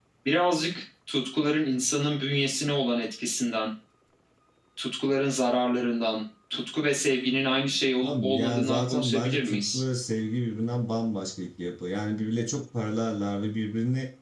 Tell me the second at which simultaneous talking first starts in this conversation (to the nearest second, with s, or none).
8 s